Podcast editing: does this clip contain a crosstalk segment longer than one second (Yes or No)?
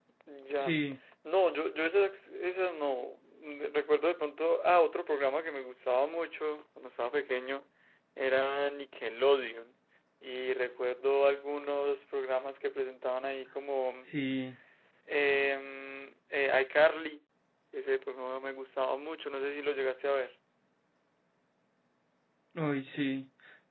No